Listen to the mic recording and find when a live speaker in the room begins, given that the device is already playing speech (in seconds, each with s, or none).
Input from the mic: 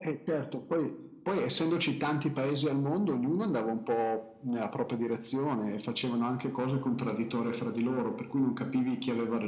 none